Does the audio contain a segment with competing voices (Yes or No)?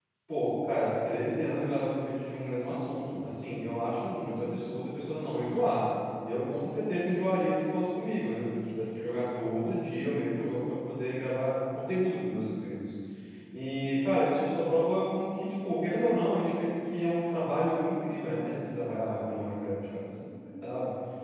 No